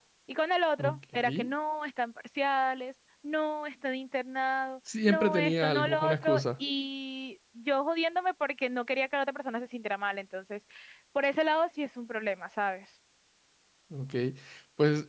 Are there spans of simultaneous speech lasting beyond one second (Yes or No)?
Yes